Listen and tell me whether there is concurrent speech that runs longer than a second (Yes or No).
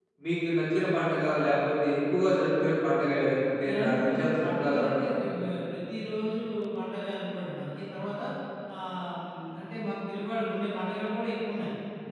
Yes